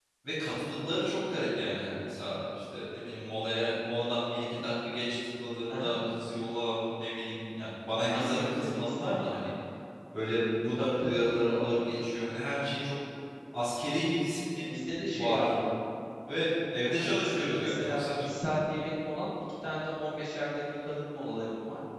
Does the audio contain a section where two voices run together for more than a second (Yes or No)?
Yes